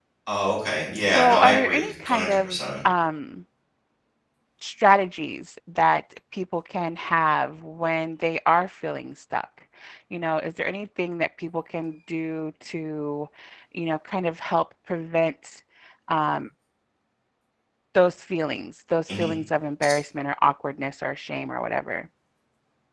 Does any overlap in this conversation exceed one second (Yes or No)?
Yes